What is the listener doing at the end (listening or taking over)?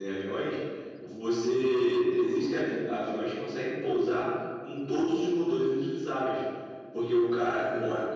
listening